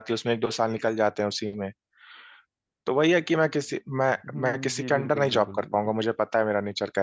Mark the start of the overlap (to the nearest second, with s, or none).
4 s